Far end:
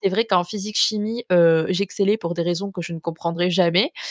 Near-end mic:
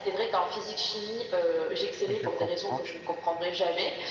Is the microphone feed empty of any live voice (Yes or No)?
No